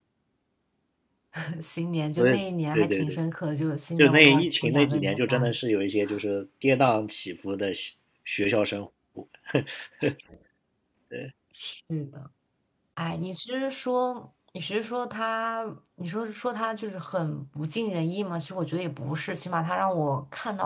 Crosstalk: present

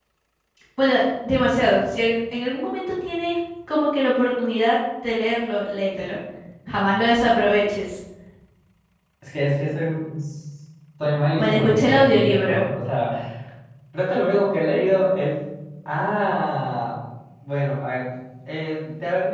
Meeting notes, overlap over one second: present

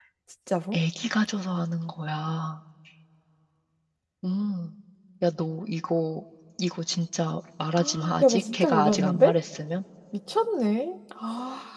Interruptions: present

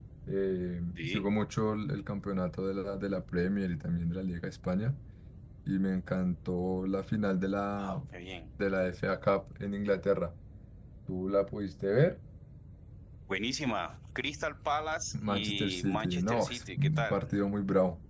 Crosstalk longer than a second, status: present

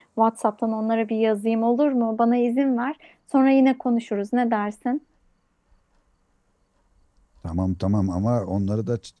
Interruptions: none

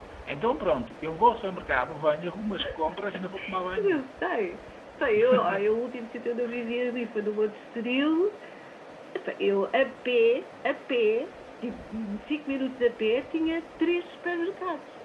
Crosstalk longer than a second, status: none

